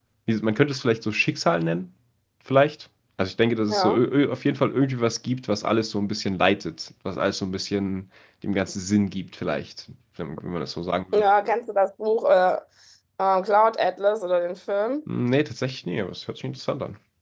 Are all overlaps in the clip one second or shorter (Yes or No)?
Yes